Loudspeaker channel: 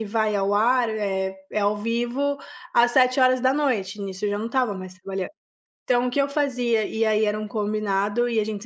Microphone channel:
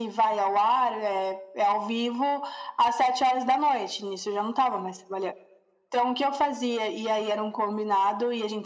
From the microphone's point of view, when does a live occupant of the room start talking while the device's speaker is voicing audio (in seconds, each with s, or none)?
none